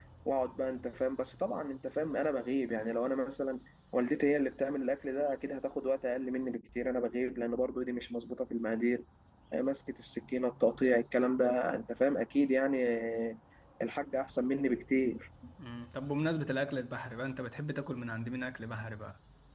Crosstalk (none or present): none